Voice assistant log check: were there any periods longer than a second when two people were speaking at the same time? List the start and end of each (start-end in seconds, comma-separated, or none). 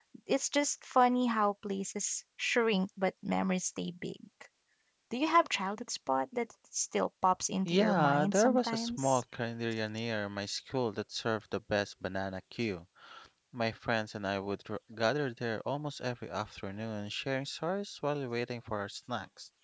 7.7-9.2